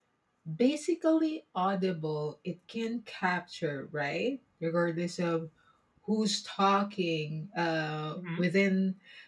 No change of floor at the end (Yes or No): Yes